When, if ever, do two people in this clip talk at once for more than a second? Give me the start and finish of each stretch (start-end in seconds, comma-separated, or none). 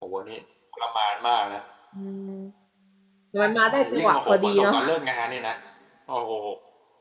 3.4-4.8